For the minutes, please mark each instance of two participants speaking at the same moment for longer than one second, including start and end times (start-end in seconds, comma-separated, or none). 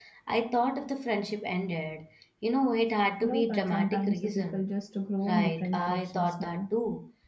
3.2-4.7, 5.3-6.6